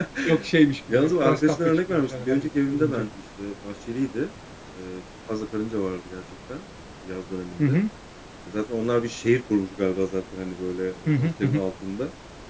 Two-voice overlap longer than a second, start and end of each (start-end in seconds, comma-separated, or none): 0.9-3.1